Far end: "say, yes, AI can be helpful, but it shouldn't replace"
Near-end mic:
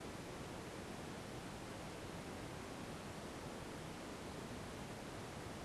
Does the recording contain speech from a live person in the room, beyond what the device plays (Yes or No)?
No